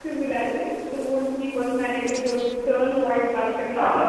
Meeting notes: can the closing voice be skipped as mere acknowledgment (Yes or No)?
Yes